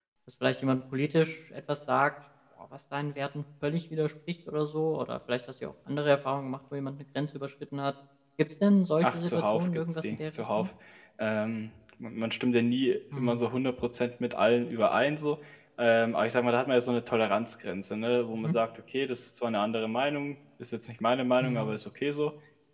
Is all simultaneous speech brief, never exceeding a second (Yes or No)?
No